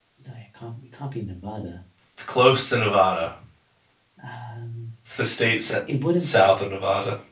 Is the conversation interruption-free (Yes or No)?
Yes